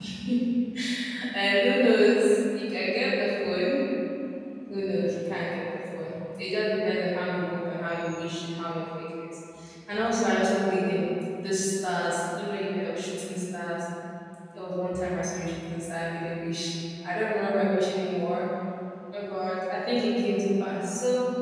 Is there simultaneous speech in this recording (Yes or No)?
No